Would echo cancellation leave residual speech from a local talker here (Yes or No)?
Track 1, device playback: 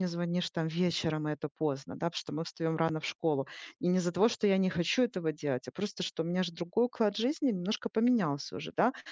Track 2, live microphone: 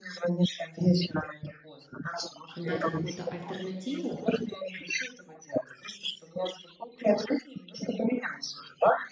Yes